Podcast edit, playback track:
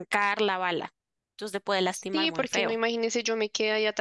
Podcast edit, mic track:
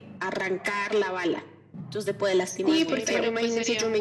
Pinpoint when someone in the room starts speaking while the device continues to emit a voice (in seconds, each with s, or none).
2.6 s